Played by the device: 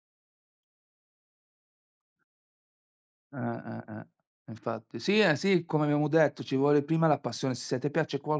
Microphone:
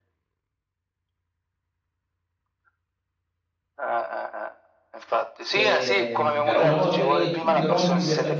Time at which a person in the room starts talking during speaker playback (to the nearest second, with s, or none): 5 s